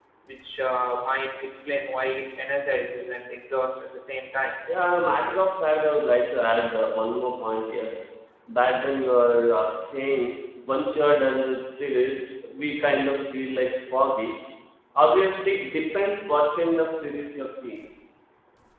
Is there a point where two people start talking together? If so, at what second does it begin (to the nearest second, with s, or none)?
none